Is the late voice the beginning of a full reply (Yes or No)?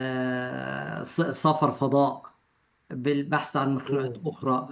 No